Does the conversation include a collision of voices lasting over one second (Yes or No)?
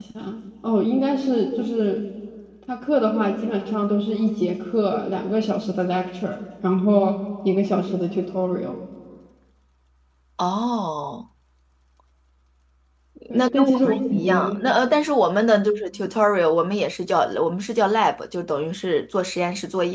Yes